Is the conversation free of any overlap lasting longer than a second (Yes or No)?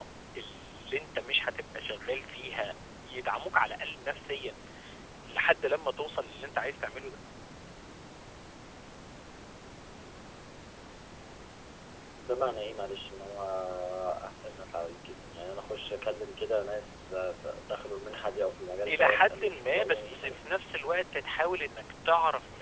No